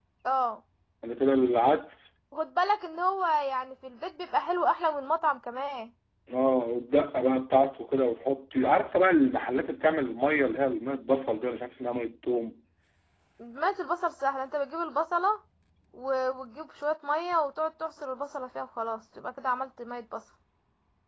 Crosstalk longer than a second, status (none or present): none